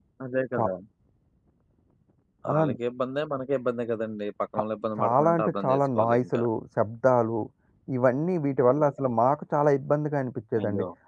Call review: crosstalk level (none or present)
present